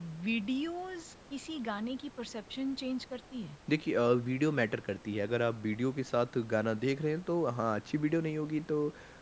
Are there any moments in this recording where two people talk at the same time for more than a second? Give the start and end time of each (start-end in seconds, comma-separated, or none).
none